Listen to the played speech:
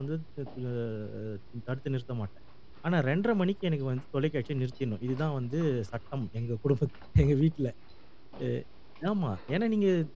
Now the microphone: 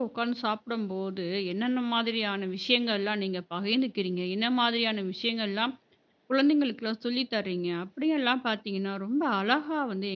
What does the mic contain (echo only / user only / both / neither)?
user only